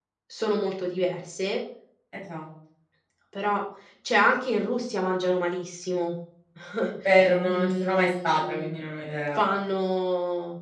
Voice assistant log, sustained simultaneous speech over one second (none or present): present